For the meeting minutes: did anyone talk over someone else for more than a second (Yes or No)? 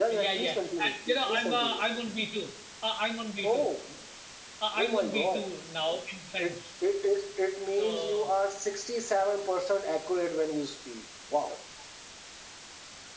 Yes